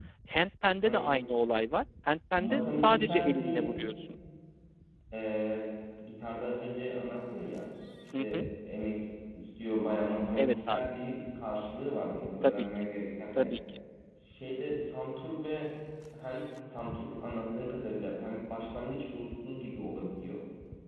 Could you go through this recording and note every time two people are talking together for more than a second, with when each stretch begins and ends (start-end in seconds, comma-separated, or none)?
2.4-3.8